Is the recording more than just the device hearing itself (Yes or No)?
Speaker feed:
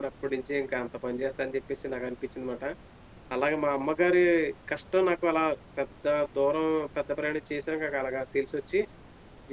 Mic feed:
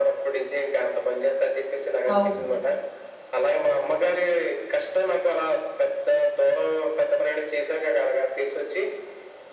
Yes